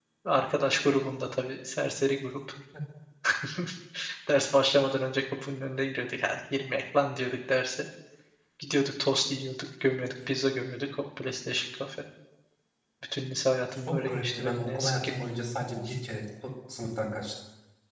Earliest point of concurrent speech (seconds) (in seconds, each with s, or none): 13.9 s